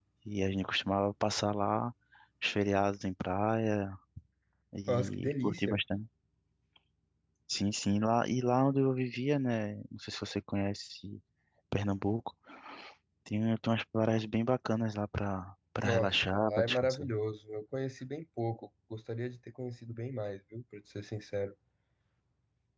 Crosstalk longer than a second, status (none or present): present